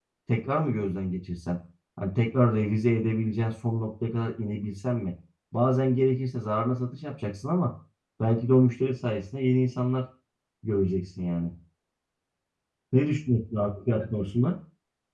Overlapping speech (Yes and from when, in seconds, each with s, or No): No